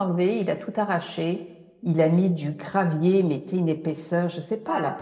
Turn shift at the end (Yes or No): No